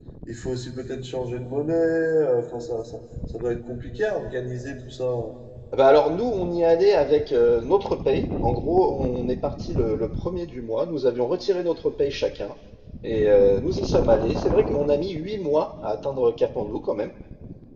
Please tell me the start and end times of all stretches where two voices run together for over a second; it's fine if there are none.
none

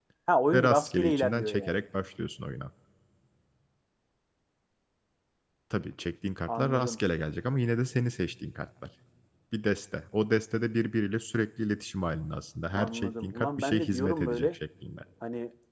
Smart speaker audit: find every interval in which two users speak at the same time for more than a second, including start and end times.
0.5-1.8, 12.7-14.6

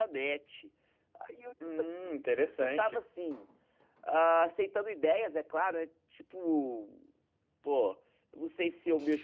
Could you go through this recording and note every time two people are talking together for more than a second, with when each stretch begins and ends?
none

